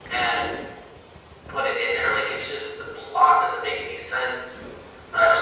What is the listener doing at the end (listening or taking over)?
taking over